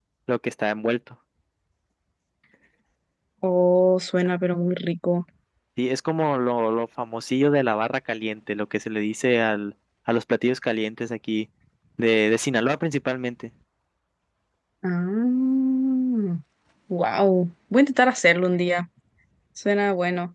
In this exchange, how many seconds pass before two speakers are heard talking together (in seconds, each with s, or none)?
none